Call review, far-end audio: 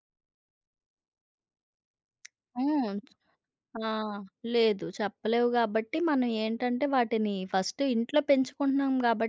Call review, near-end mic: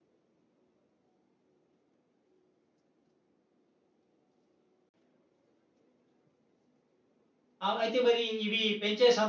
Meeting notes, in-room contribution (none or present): present